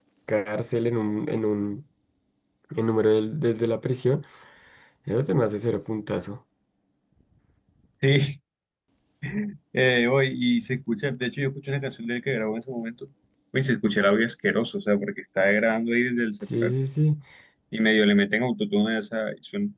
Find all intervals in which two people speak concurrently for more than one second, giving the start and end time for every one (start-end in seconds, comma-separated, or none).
none